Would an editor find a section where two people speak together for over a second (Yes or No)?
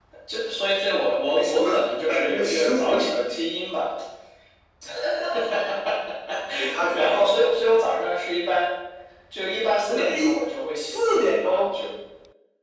Yes